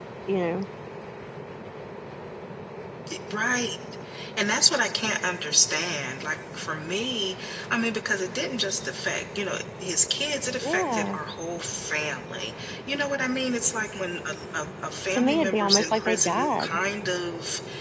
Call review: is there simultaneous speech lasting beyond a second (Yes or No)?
Yes